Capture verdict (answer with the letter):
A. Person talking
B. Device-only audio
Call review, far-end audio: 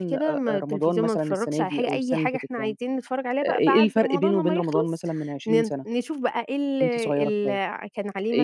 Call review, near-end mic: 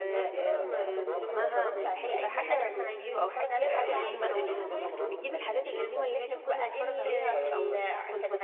A